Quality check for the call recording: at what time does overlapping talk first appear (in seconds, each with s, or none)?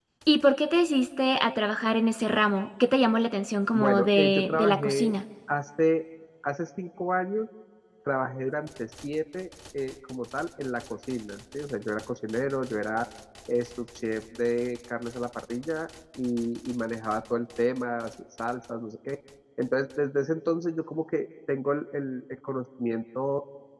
3.7 s